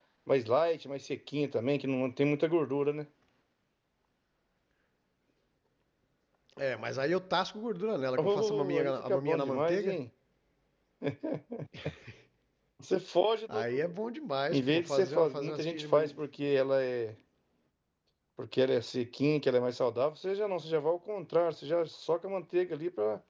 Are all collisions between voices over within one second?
No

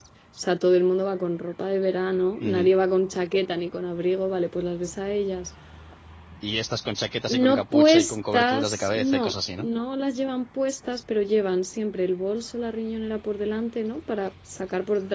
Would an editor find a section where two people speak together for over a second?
Yes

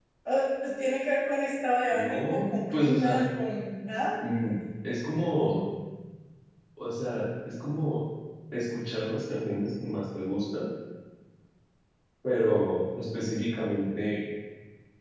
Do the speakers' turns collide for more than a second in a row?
Yes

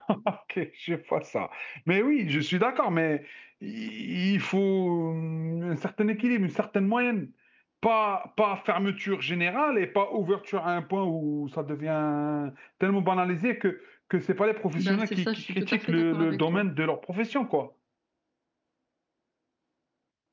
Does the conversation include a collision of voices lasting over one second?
Yes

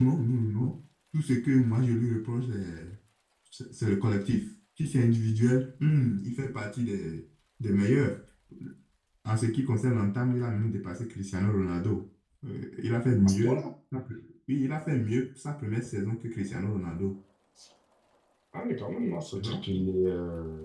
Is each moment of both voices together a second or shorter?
Yes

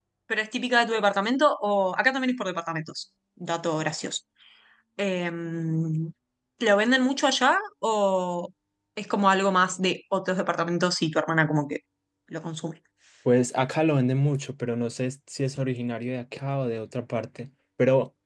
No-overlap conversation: Yes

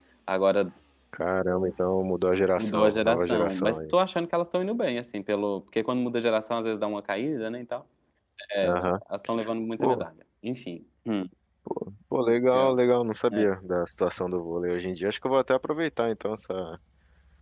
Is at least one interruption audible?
Yes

